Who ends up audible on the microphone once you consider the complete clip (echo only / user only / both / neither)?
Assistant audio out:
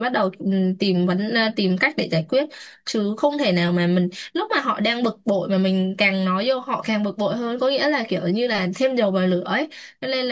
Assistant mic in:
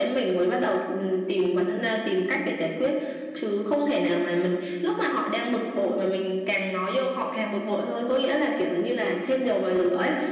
echo only